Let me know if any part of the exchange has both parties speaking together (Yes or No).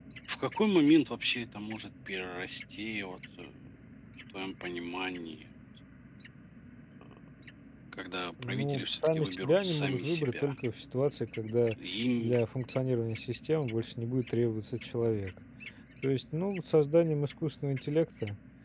Yes